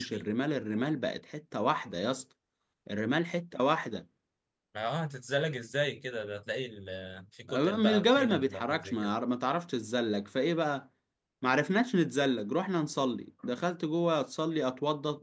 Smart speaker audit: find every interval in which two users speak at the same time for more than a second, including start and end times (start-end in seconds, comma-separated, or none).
7.5-9.1